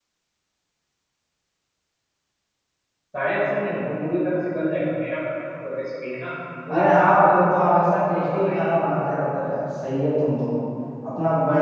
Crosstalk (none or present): present